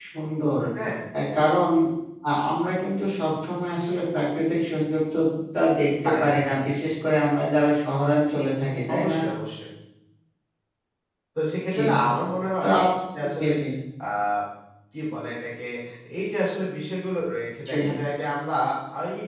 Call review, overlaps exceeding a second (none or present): none